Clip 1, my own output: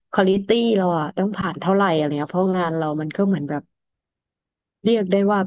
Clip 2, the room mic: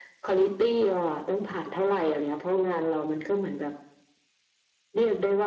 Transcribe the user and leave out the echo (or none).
none